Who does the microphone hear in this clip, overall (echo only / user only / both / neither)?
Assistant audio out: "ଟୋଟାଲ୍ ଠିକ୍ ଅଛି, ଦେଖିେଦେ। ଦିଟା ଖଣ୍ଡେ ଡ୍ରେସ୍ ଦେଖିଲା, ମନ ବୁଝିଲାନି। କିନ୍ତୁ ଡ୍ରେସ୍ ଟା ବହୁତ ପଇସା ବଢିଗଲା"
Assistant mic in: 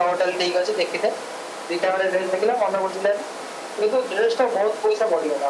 echo only